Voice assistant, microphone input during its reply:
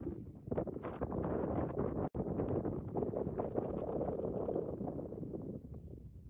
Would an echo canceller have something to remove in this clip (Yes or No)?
No